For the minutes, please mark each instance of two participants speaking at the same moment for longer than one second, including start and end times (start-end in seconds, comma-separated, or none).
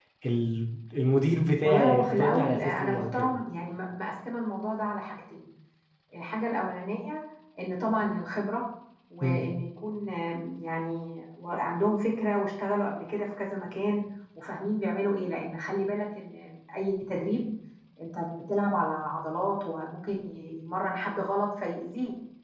1.6-3.3